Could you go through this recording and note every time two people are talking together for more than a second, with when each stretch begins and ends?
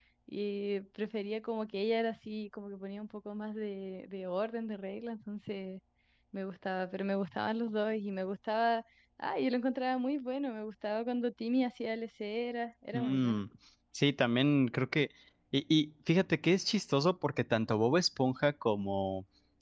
none

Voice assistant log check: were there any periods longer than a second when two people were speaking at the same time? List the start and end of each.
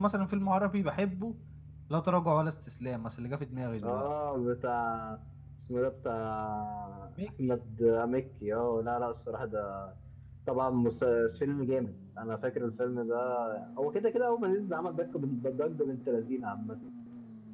none

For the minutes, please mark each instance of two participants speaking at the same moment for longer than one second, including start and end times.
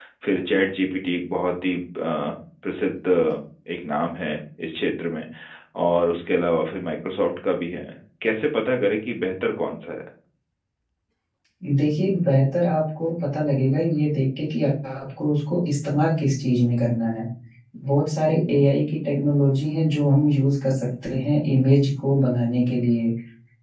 none

